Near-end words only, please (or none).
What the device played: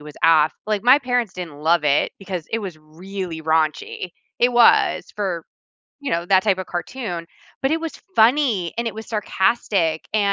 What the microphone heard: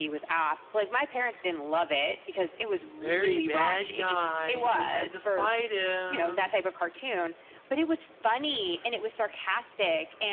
very bad guy, we had to fight him,